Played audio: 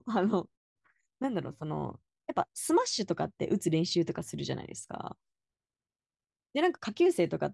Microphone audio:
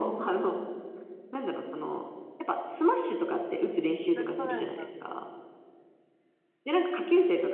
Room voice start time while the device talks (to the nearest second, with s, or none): 4 s